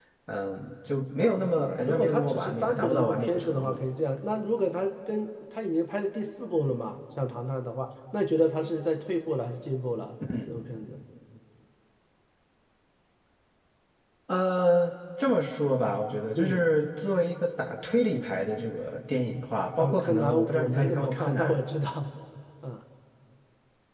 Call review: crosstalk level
present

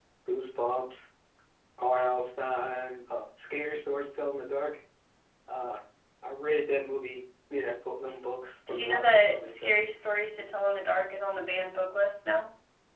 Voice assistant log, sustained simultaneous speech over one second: present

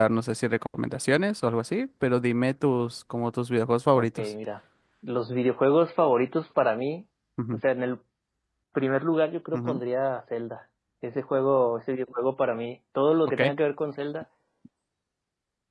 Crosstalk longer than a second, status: none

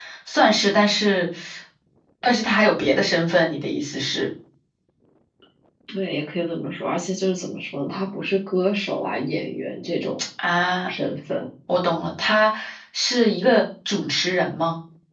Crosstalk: none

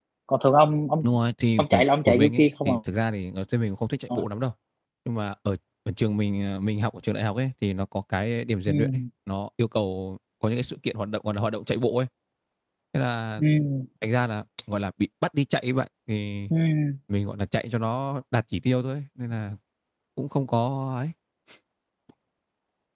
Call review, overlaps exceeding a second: present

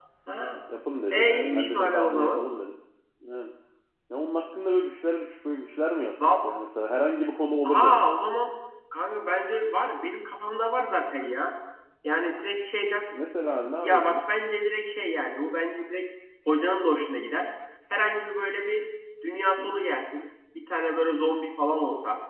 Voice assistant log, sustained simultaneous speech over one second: present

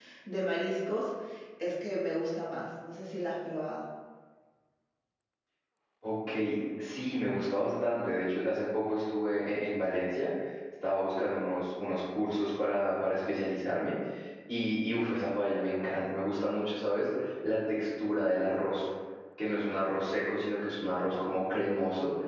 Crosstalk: none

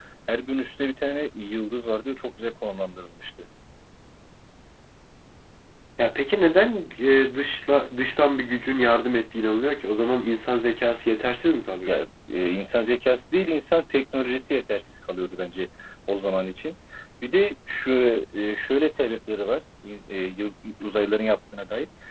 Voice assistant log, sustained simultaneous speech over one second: none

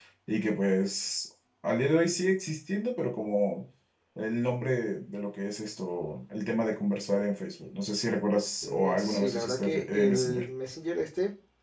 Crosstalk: present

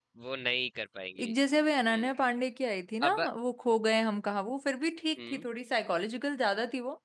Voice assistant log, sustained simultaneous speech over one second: none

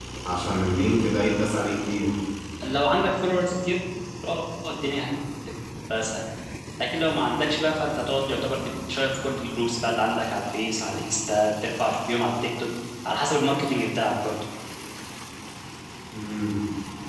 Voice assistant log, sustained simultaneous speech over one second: none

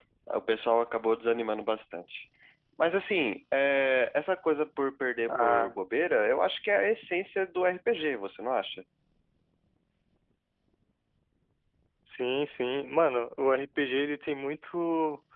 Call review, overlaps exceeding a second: none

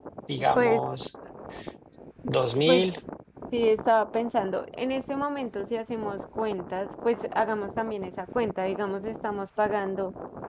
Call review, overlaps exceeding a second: none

